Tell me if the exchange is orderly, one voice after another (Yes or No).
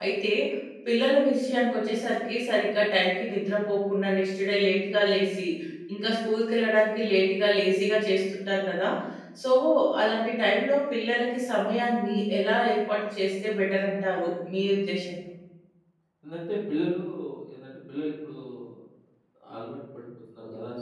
Yes